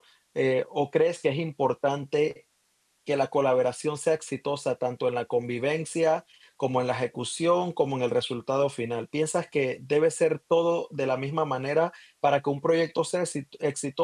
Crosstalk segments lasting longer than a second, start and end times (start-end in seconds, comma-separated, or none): none